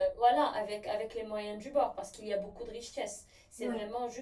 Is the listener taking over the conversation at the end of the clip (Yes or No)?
No